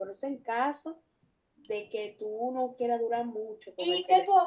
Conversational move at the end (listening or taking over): taking over